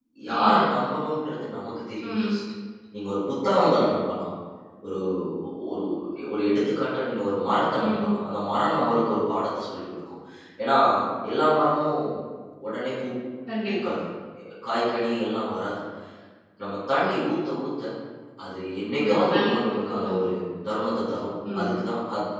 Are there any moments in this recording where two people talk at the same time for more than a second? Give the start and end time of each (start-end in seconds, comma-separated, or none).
19.0-20.3